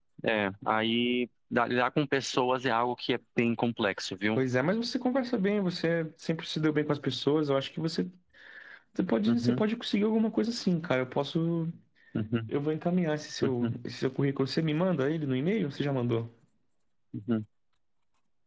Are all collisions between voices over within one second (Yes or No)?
Yes